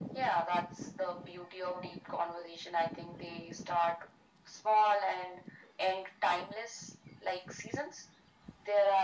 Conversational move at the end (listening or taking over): listening